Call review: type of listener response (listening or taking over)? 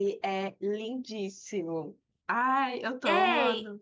taking over